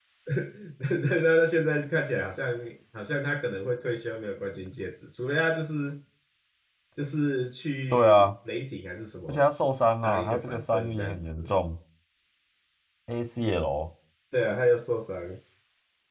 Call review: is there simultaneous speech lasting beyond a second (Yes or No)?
Yes